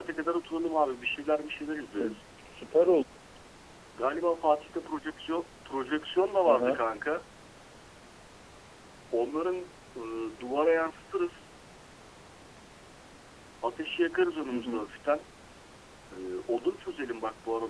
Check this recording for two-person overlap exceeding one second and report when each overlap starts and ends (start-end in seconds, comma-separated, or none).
none